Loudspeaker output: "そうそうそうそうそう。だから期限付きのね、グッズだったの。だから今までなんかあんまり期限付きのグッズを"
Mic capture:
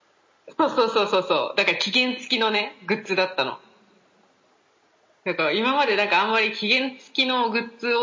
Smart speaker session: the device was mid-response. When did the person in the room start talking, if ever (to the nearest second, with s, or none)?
none